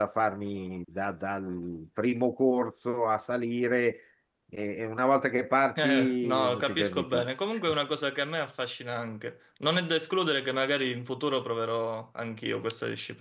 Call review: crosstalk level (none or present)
present